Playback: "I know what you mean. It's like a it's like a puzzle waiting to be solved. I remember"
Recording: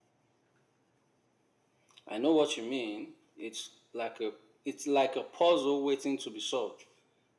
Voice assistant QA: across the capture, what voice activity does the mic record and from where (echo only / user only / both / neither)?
echo only